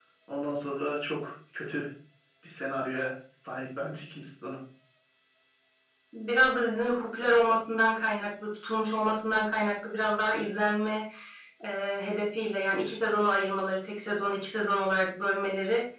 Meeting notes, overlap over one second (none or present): none